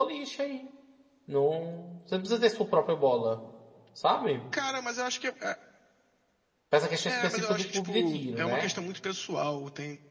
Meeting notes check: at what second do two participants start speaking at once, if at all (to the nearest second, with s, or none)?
7 s